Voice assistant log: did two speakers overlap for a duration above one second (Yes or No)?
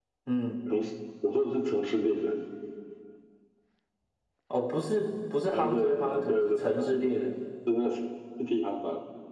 Yes